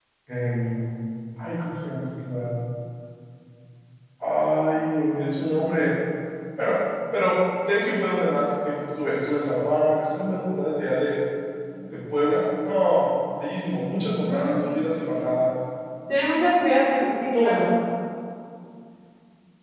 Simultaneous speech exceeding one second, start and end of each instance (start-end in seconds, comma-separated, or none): none